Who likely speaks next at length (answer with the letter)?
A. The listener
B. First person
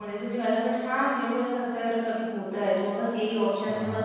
B